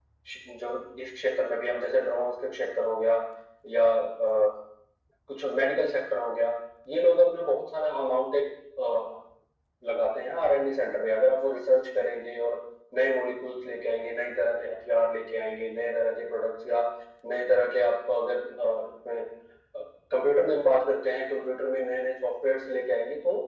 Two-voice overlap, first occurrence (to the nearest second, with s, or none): none